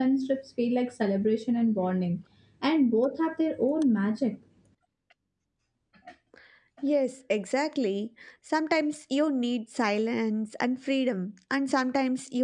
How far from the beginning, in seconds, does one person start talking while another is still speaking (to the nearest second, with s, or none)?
none